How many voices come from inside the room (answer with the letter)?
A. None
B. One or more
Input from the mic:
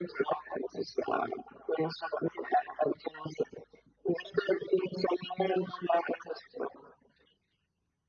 A